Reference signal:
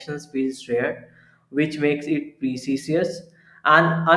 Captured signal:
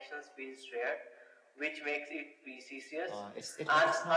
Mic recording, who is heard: both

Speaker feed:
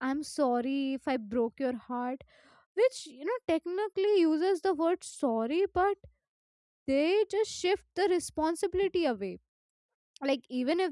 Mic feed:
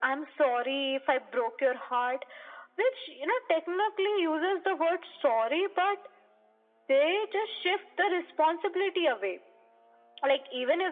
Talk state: echo only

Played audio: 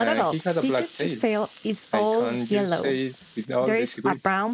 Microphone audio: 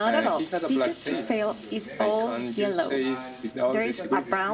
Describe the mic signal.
both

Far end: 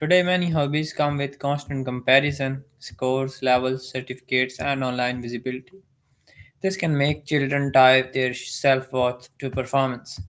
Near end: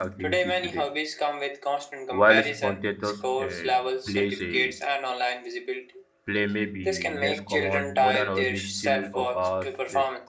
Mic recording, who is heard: both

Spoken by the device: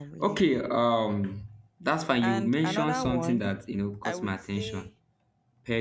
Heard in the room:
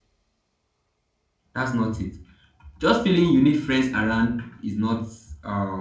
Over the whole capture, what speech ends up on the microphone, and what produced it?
user only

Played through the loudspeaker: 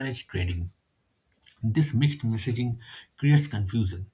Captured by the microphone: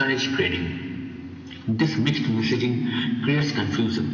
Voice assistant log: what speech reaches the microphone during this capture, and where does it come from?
echo only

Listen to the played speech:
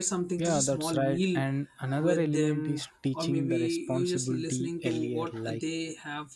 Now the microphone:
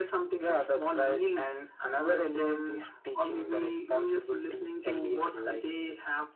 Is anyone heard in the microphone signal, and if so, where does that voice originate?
echo only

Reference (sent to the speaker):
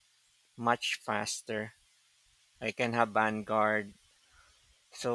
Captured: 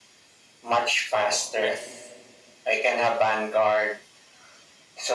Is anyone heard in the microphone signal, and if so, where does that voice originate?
both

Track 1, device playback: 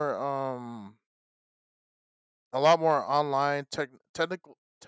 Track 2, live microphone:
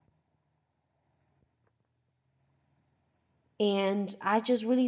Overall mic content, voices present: user only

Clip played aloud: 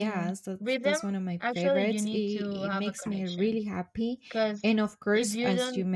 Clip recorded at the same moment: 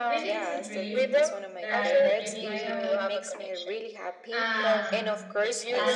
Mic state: both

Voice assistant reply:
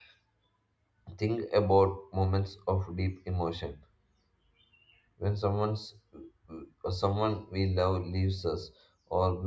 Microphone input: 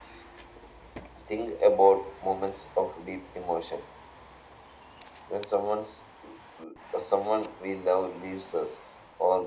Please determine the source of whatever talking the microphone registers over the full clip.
echo only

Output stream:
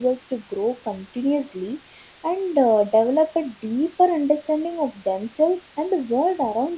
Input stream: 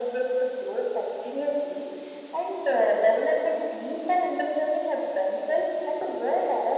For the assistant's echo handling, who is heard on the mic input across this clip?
echo only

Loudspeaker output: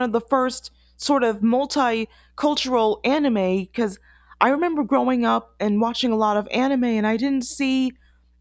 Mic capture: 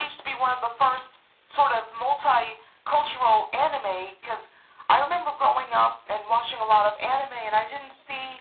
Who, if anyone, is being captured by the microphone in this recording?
echo only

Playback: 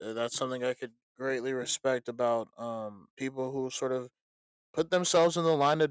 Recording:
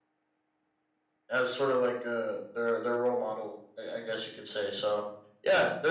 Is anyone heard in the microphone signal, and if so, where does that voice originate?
user only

